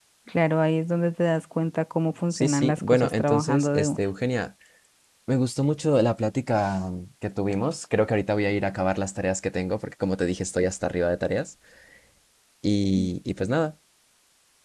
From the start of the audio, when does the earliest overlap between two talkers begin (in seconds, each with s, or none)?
2.3 s